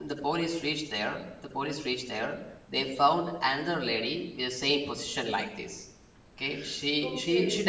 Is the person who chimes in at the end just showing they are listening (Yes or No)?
Yes